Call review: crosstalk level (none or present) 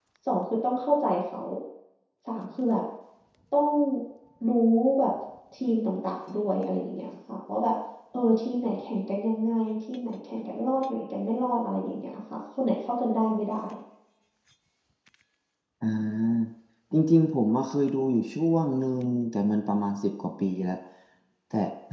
none